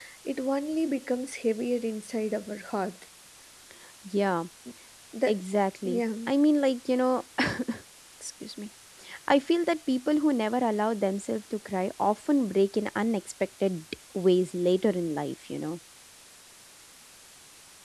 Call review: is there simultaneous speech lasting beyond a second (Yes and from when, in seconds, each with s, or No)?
No